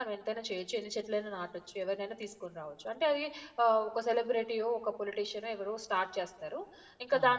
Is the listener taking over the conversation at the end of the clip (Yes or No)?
No